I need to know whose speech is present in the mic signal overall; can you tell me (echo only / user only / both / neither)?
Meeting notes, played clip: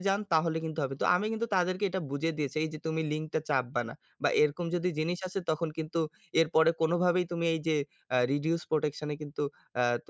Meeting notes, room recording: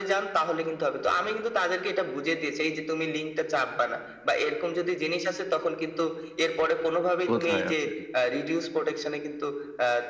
both